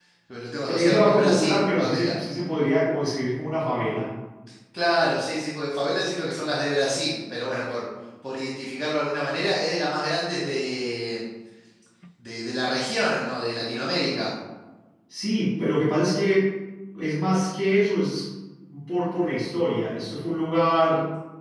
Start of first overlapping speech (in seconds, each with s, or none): 0.7 s